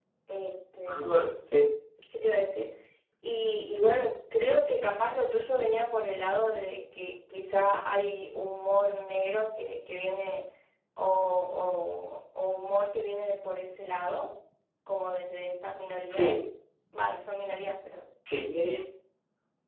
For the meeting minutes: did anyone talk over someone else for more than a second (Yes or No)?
No